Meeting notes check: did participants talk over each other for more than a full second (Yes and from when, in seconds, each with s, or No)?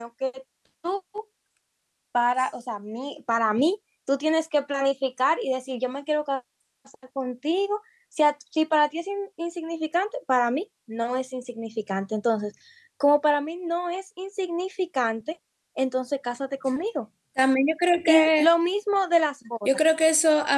No